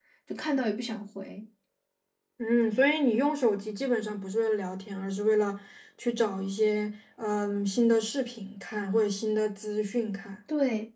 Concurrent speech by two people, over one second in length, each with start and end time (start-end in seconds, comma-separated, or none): none